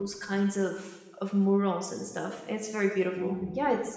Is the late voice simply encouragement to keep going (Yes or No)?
Yes